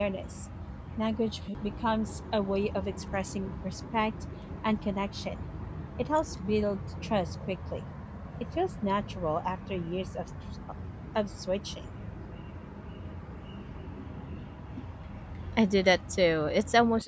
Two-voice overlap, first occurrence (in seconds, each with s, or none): none